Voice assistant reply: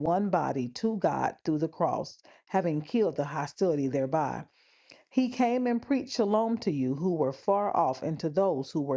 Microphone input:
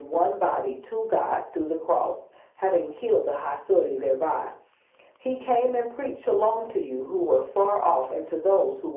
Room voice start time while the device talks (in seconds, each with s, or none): none